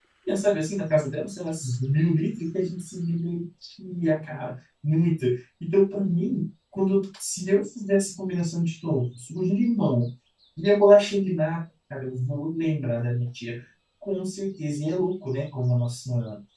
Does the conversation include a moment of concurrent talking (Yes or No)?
No